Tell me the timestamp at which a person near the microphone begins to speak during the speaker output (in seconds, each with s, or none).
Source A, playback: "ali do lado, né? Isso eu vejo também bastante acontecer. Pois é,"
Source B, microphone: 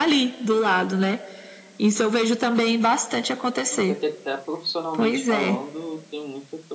3.7 s